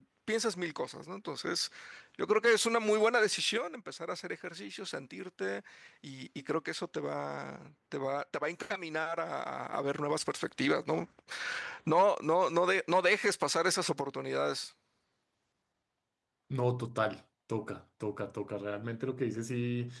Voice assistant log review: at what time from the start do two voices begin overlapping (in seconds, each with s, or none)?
none